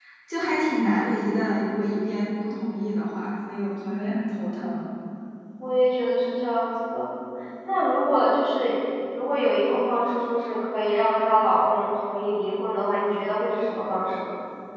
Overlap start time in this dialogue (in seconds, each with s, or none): none